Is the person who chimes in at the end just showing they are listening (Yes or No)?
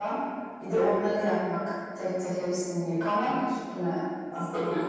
No